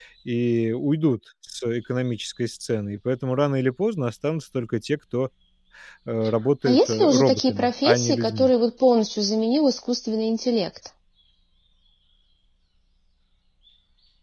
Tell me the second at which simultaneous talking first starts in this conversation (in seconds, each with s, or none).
6.7 s